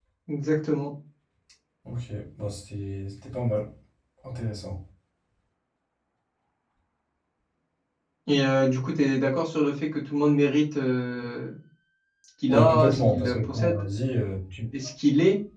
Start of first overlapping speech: 12.5 s

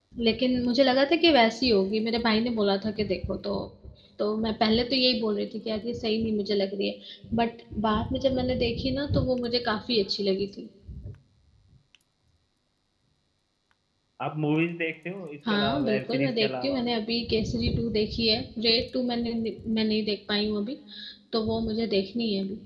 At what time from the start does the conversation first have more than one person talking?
15.5 s

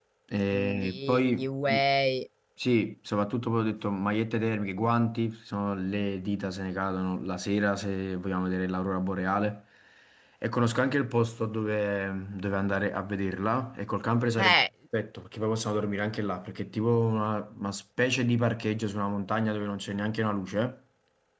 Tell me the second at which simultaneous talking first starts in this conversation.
0.5 s

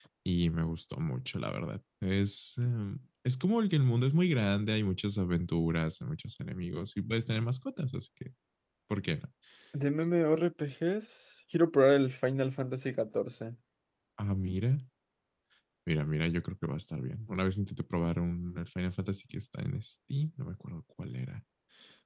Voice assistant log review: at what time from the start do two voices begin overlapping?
none

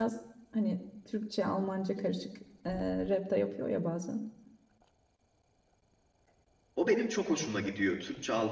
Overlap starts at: none

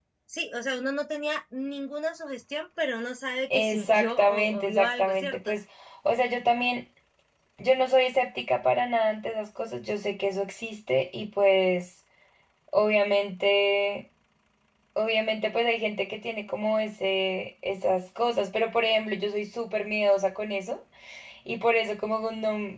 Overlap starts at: 3.5 s

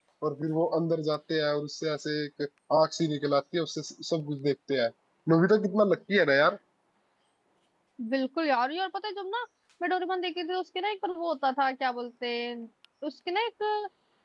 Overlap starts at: none

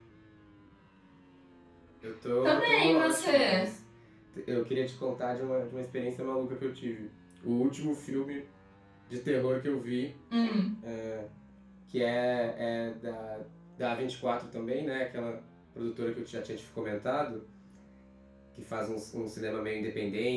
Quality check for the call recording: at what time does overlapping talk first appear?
2.4 s

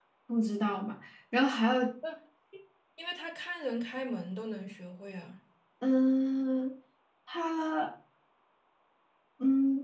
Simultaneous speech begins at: none

